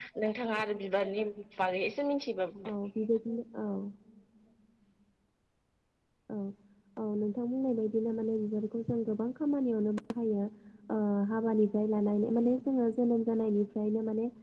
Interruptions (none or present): none